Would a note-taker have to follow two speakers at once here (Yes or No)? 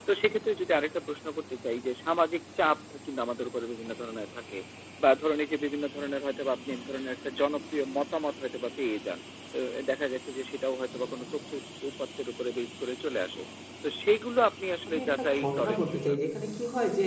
Yes